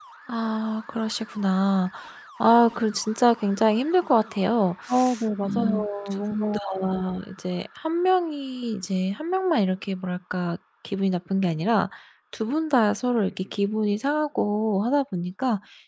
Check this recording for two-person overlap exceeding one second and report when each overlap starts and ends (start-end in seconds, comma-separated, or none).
none